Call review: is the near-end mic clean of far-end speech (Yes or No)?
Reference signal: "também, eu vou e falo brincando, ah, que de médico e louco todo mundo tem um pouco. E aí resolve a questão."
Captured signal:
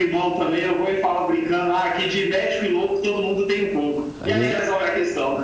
No